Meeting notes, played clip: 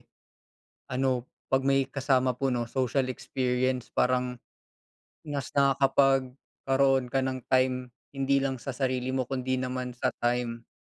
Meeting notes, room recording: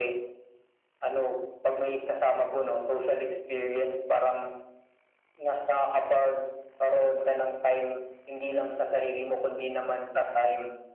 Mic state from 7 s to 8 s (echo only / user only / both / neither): echo only